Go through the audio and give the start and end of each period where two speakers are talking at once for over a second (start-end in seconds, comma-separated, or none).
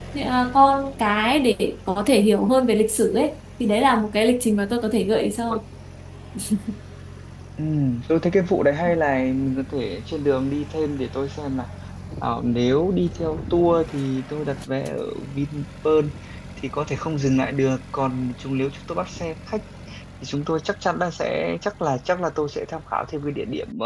none